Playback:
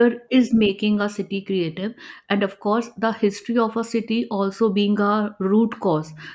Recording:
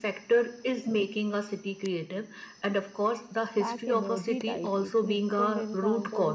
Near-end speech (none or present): present